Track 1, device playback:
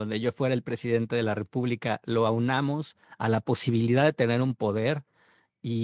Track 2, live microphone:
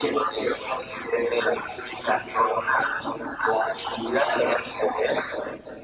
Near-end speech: none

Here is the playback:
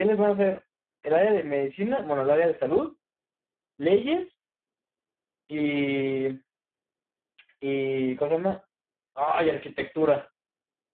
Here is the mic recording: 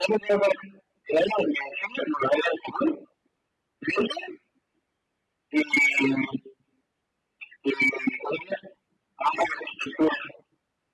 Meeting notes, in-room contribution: none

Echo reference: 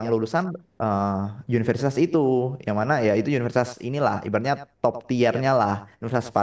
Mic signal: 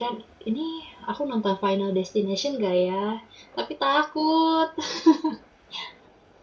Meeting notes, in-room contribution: present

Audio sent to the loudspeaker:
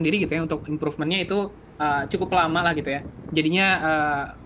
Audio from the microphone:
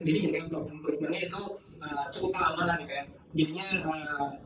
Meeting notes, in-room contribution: none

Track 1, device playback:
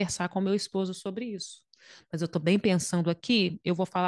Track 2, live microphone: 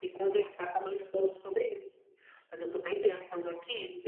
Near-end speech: none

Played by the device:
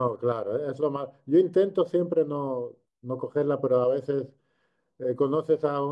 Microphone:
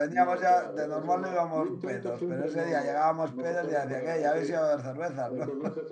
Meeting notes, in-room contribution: present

